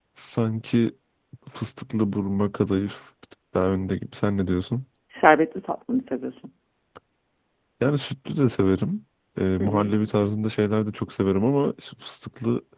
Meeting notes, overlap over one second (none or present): none